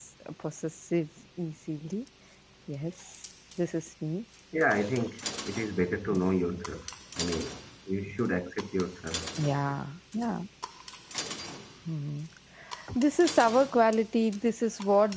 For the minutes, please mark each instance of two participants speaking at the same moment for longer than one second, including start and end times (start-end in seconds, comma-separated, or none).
none